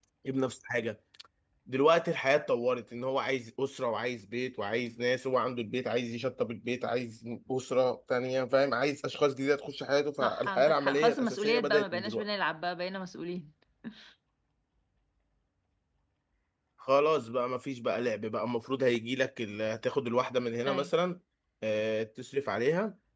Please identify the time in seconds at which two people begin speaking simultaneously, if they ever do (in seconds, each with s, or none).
10.2 s